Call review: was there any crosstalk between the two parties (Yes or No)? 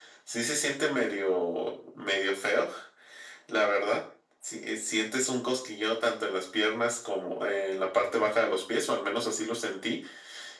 No